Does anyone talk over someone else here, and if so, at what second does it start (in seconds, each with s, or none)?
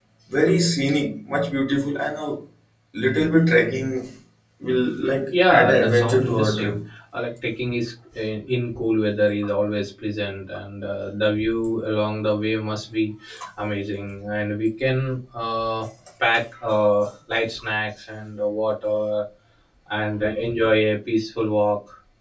5.5 s